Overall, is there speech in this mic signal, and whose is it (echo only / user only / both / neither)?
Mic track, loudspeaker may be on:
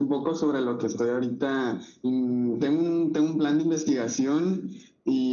echo only